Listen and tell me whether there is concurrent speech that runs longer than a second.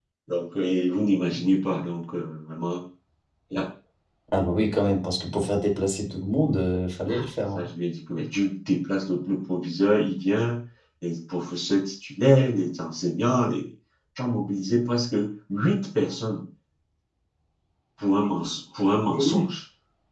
No

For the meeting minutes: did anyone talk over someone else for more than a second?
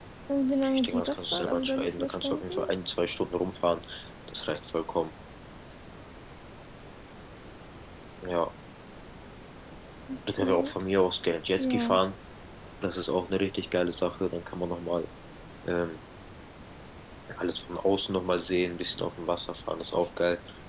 Yes, from 0.7 s

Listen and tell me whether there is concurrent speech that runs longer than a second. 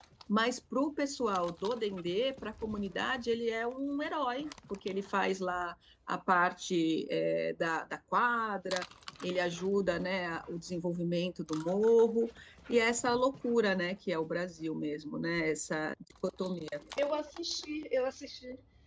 No

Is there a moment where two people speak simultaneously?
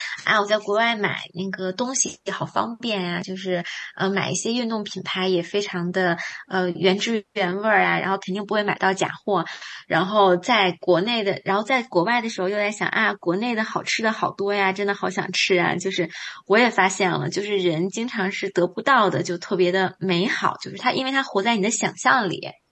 No

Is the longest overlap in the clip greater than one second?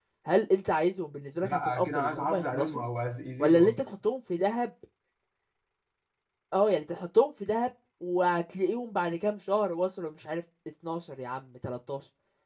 Yes, from 1.4 s

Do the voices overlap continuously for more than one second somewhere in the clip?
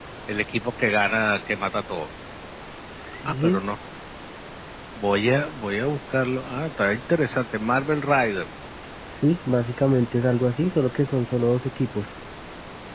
No

